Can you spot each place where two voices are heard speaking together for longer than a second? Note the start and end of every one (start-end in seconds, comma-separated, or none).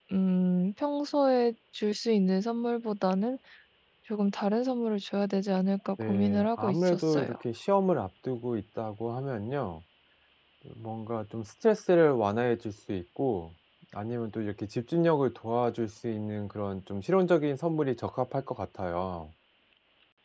6.0-7.3